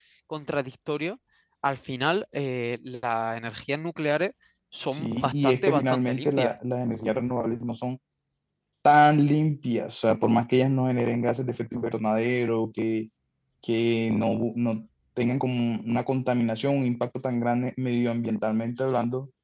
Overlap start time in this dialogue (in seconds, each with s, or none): 4.9 s